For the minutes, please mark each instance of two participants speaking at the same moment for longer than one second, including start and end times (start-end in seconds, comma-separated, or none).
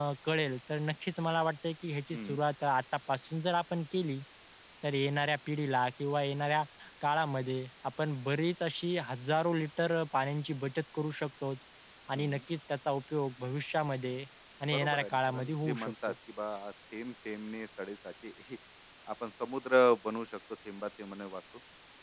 14.7-16.1